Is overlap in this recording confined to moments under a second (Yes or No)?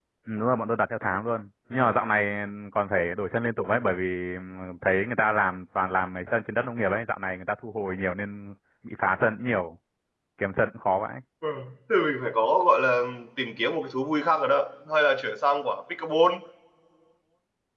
Yes